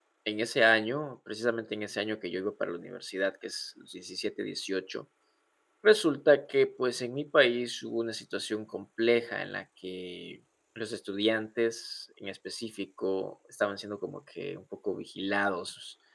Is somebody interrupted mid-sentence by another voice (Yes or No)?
No